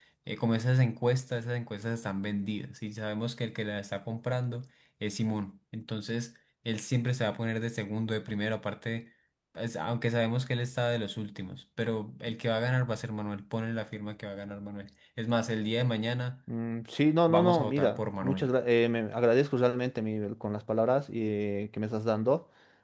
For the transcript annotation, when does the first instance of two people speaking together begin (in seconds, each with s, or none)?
17.3 s